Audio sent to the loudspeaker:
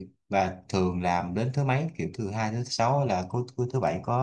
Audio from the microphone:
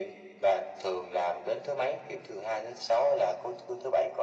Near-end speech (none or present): none